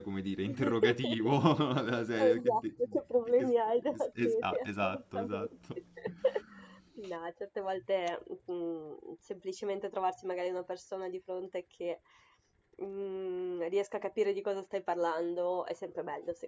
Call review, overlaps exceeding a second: present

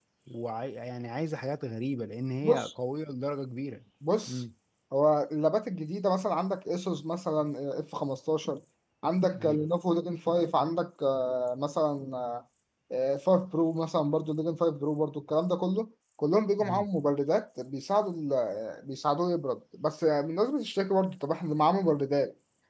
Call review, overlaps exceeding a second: none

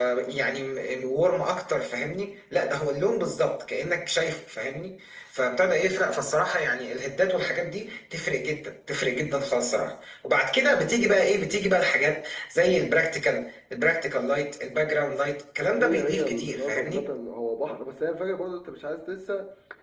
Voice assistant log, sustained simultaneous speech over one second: present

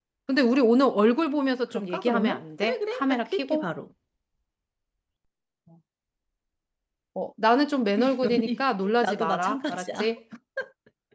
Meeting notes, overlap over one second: present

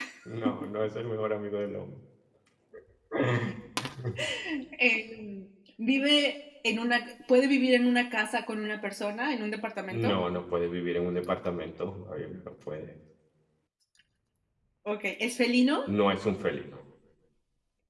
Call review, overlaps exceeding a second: none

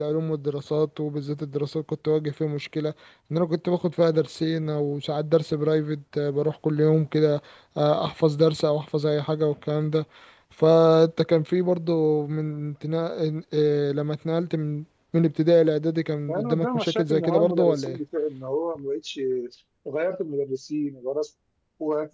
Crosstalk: present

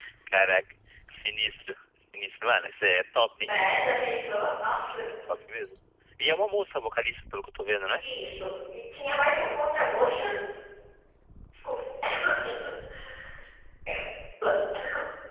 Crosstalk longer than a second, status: none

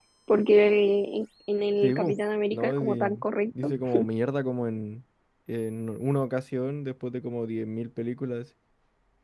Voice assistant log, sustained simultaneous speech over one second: present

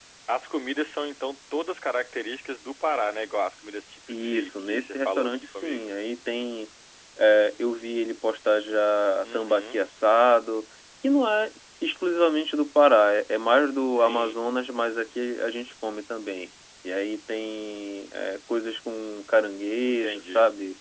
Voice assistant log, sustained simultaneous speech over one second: present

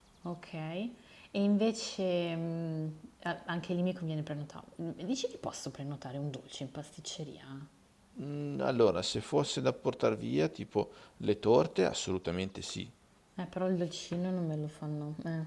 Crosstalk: none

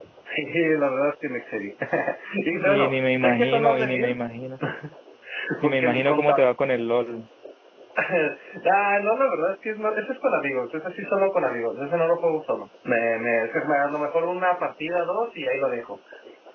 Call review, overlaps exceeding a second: present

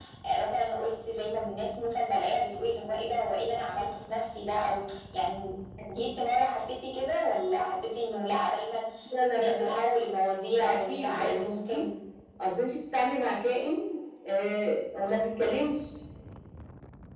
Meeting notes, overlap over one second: present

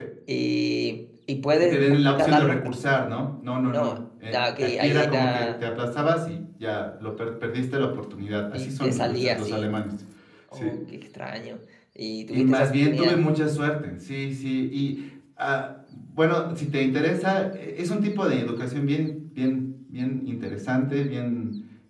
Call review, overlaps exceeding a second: present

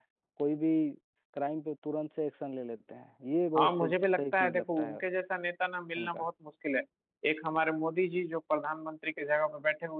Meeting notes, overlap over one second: present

